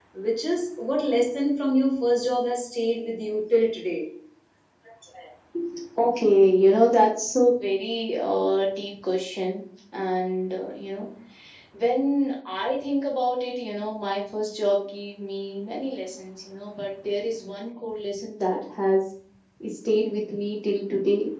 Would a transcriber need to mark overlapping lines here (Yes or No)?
No